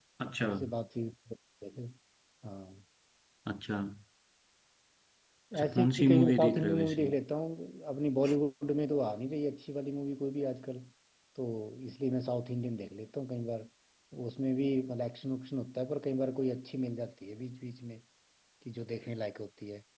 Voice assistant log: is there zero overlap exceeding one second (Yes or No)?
No